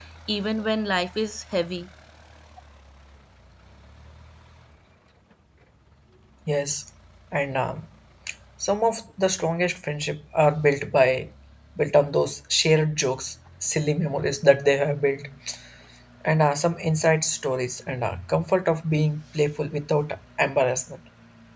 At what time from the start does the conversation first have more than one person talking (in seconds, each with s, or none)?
none